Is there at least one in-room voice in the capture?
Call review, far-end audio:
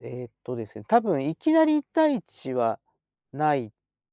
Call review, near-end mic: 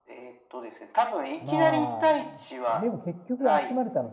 Yes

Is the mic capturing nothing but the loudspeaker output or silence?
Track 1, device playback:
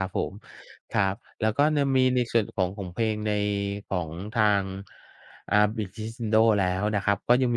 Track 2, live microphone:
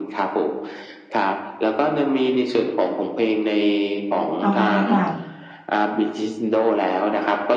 No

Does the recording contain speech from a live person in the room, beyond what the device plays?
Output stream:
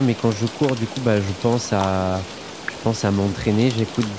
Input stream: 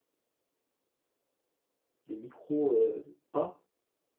Yes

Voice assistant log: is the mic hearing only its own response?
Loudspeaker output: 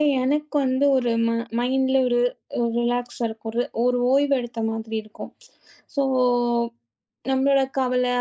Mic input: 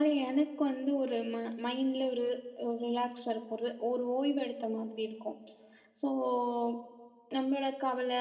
Yes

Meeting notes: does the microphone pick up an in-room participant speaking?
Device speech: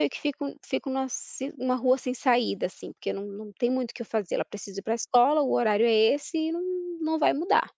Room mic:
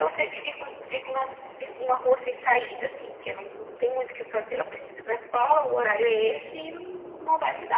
No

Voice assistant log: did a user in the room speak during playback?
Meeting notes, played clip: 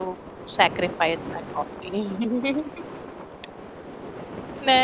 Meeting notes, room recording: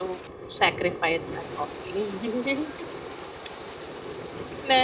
No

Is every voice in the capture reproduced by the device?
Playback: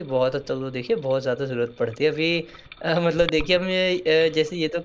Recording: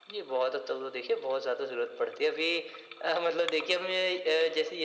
Yes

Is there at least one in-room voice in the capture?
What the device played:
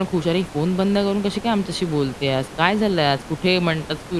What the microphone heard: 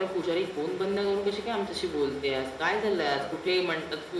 Yes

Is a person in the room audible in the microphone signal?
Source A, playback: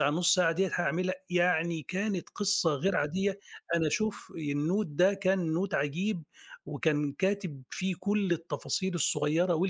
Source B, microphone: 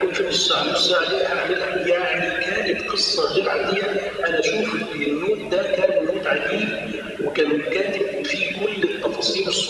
No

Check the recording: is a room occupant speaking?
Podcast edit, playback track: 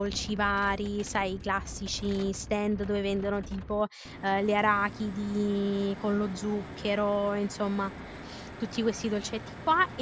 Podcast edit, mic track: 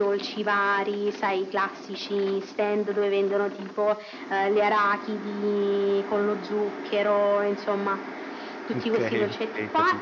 Yes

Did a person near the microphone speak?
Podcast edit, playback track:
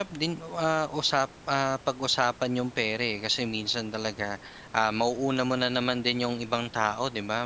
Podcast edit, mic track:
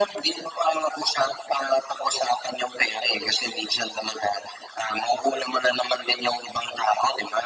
No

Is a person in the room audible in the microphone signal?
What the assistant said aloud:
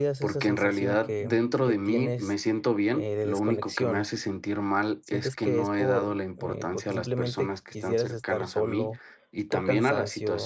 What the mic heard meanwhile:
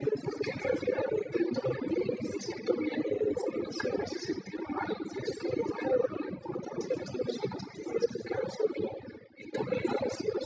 No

